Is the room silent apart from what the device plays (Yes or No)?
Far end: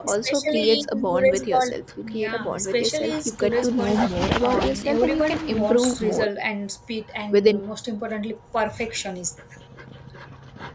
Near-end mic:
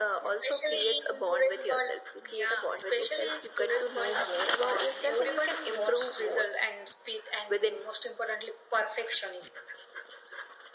Yes